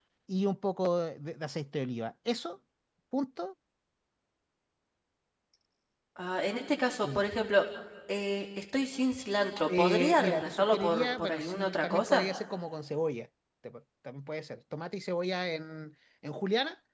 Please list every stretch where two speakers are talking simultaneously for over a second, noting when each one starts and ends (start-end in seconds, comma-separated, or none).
9.7-12.2